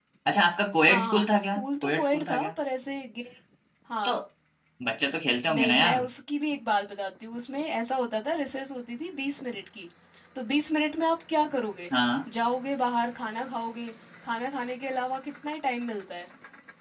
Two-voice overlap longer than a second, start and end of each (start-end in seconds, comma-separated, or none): 0.8-2.5